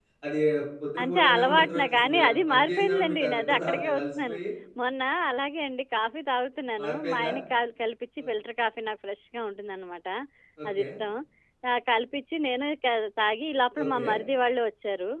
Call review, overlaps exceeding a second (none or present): present